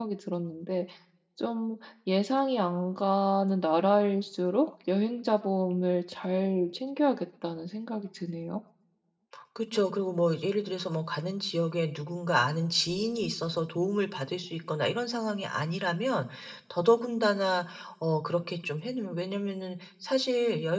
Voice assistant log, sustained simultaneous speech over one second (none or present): none